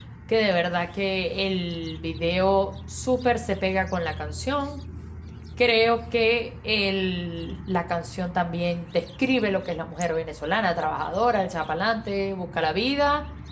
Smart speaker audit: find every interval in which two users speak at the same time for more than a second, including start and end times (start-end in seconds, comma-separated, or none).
none